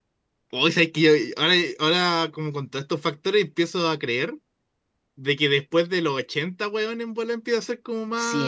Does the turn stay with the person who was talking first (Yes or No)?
No